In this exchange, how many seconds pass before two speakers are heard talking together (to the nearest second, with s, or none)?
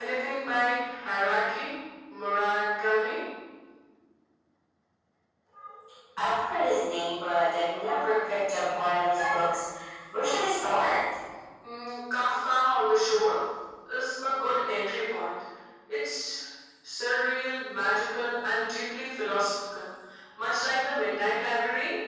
none